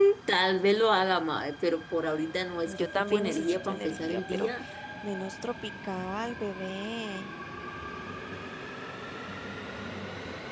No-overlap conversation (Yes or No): No